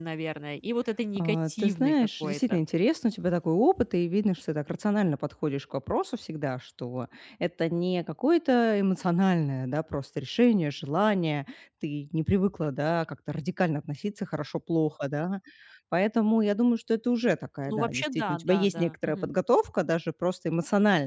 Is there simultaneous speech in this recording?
Yes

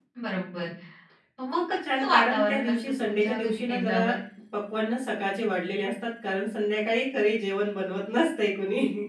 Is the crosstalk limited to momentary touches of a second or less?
No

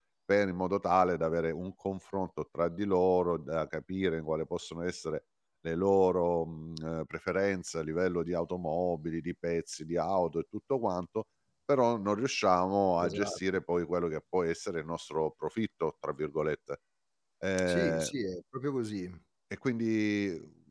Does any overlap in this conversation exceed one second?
No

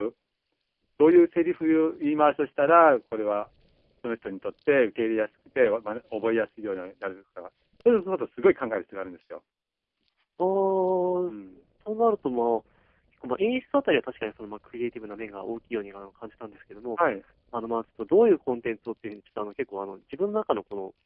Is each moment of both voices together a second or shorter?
Yes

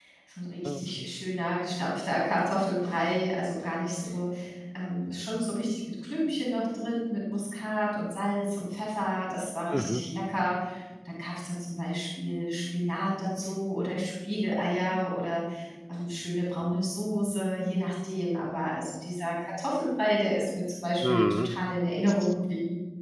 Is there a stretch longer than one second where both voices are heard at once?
No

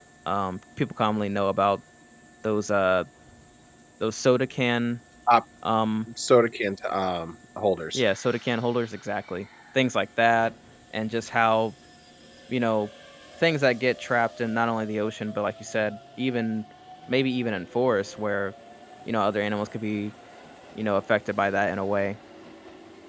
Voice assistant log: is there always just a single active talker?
Yes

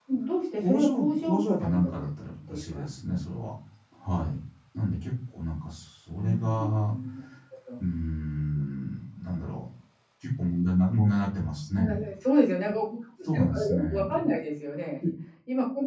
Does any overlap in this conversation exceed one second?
Yes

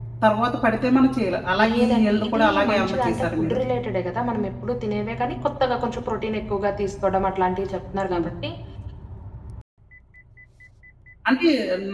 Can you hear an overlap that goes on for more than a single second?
Yes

